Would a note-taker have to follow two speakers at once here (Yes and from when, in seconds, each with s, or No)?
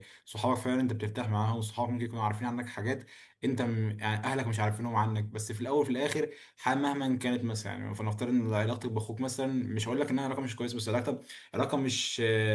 No